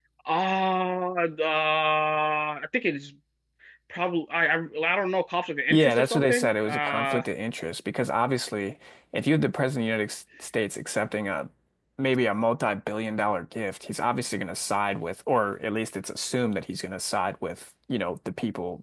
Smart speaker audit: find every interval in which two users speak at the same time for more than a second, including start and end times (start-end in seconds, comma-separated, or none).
5.7-7.2